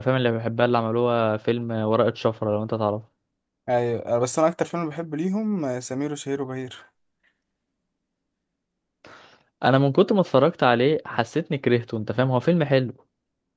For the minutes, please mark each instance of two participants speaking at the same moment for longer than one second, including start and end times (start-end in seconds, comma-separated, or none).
none